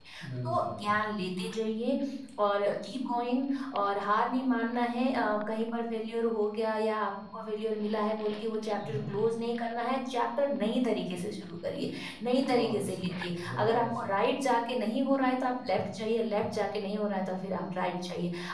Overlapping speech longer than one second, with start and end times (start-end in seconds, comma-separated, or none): 12.5-14.1